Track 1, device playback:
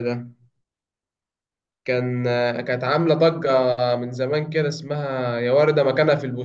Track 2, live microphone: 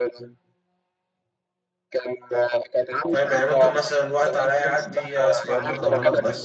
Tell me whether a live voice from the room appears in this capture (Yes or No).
Yes